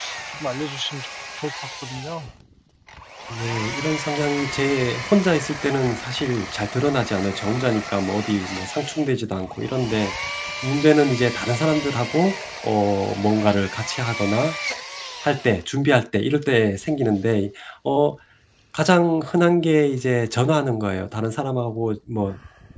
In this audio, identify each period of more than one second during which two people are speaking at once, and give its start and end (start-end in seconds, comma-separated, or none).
none